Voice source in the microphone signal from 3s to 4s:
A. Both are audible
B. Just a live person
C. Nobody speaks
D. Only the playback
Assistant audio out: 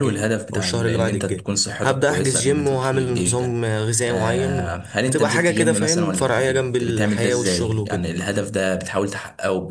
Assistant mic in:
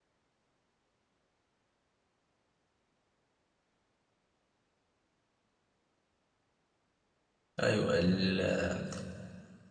C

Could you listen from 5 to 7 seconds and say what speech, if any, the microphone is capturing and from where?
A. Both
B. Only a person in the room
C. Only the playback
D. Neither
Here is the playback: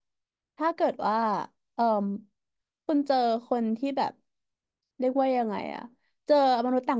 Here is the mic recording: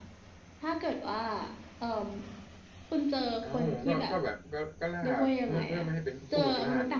A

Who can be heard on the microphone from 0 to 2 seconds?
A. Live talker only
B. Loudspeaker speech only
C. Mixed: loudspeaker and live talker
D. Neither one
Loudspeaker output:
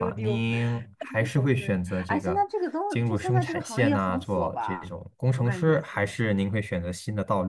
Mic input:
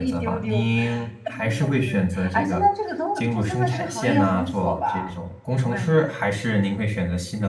B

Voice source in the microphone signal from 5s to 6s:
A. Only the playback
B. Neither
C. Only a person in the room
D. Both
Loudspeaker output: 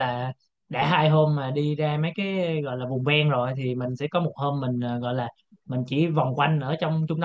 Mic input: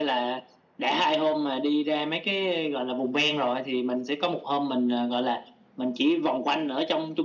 A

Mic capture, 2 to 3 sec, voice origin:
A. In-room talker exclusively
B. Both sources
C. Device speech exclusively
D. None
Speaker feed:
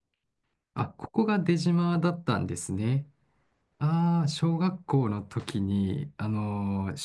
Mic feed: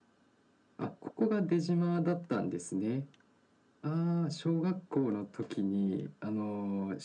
C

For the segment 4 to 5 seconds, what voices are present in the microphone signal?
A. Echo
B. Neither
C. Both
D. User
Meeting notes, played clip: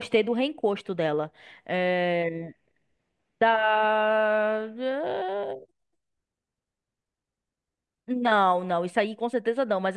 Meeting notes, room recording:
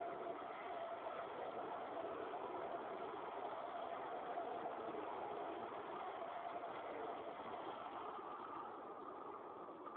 B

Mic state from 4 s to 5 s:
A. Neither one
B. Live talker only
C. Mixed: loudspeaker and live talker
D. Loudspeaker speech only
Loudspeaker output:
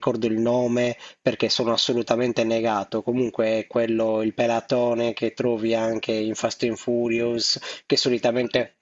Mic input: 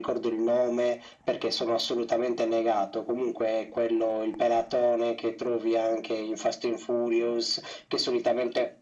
D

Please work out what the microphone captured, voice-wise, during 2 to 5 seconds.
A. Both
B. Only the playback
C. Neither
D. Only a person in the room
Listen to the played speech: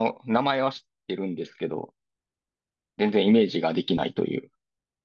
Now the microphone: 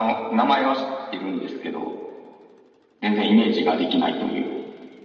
B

